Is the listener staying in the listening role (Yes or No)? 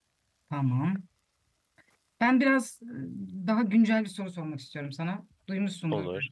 Yes